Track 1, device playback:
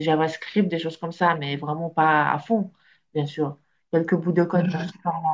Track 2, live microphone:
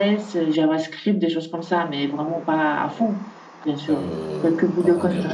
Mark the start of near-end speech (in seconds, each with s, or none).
3.9 s